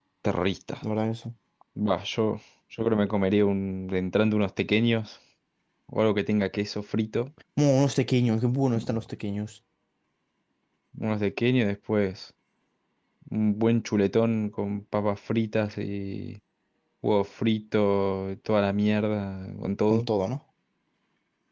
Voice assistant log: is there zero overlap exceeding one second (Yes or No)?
Yes